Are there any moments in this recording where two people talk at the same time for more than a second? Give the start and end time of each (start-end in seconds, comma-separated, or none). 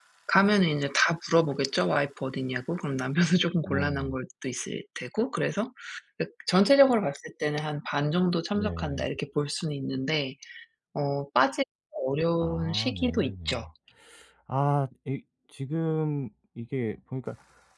12.4-13.6